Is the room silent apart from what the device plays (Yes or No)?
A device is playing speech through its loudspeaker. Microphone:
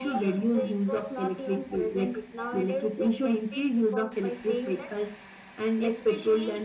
Yes